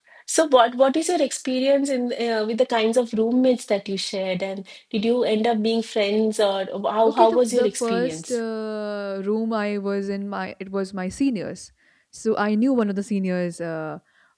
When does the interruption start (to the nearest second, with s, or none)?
7 s